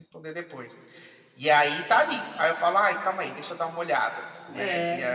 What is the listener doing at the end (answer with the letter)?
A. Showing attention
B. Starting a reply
B